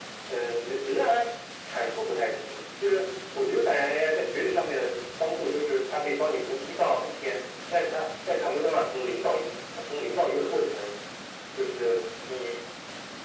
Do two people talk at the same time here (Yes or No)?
No